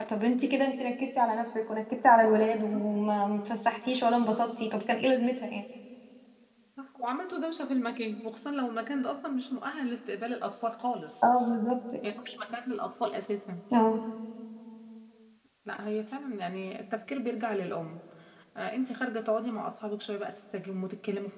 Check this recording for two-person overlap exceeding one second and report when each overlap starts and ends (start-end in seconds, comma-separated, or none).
none